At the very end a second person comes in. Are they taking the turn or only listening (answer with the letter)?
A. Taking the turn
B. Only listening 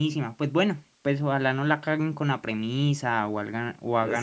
A